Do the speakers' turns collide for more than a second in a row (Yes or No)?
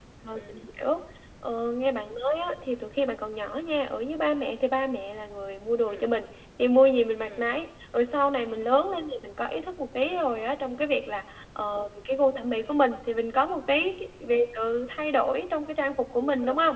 No